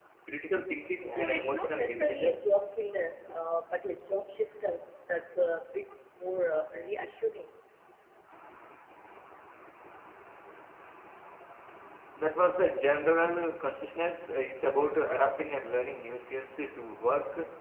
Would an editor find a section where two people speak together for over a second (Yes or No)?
Yes